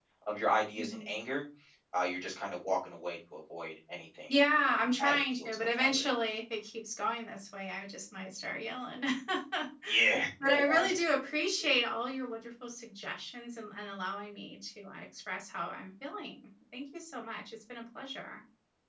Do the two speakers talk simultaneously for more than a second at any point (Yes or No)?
Yes